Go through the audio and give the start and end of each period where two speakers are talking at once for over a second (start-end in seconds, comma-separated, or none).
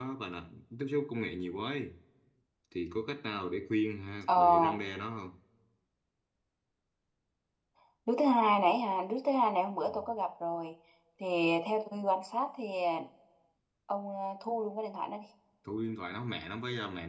none